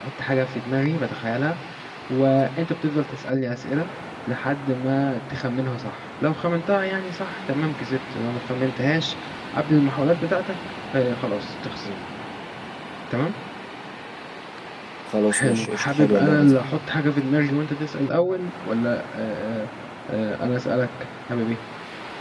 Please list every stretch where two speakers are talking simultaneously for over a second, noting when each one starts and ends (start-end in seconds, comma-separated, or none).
15.3-16.6